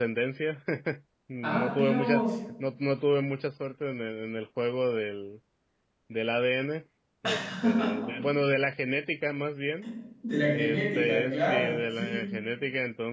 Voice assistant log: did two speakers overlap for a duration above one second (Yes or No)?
Yes